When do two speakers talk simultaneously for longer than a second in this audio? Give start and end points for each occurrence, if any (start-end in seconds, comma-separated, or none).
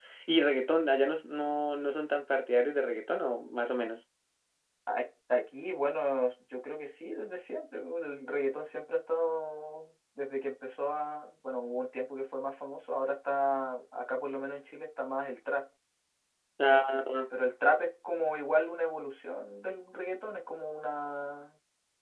none